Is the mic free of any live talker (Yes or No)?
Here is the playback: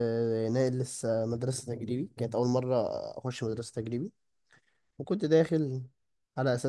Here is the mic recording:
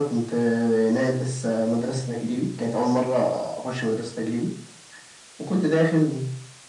Yes